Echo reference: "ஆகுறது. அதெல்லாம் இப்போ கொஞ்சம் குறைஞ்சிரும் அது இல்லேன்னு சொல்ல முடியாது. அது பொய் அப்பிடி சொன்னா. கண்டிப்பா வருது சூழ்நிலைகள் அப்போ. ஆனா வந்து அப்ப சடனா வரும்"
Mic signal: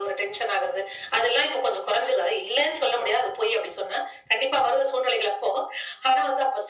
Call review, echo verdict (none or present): present